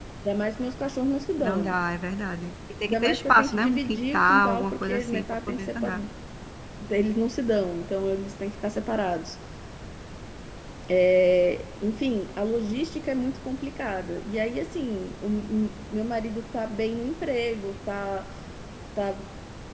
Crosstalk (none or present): present